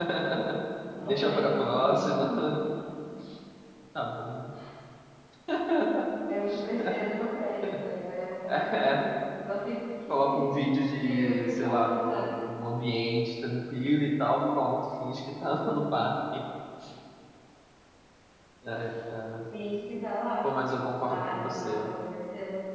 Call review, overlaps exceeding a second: present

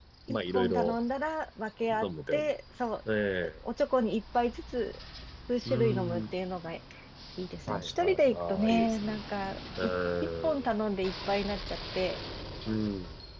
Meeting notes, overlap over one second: present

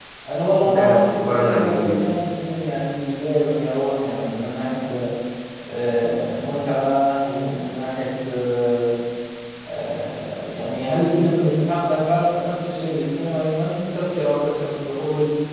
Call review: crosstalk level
present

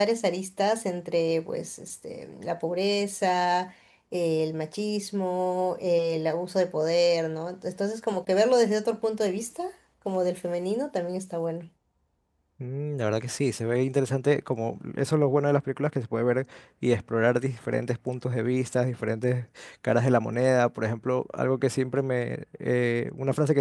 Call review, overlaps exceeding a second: none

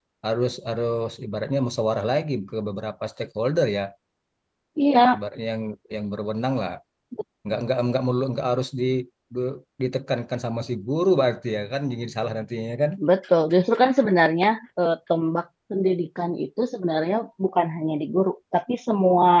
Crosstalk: none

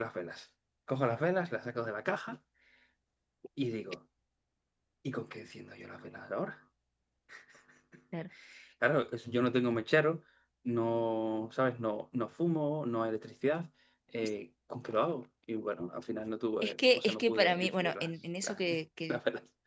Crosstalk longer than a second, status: present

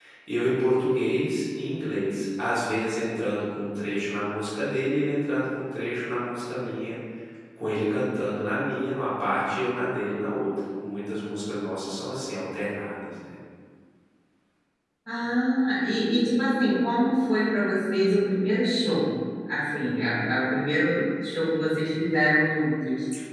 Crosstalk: none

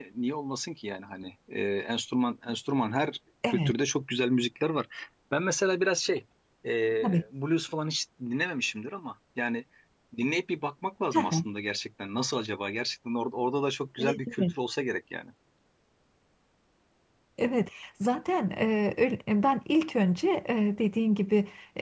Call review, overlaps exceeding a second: none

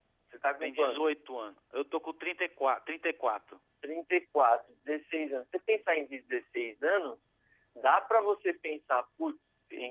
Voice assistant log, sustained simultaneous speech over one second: none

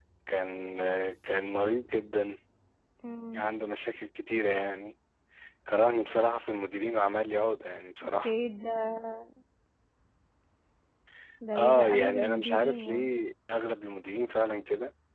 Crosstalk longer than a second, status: present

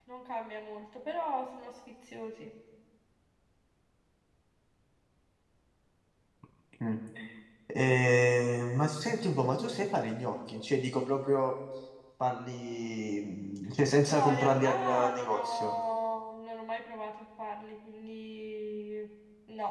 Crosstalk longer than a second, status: present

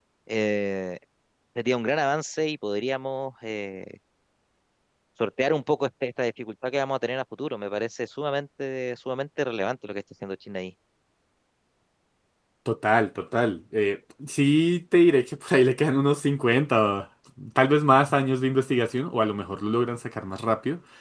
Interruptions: none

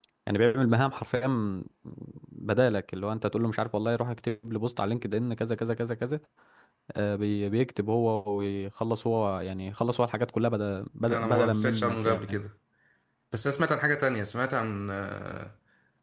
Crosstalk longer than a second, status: present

